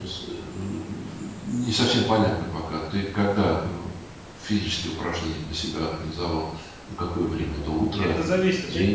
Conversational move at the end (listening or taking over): taking over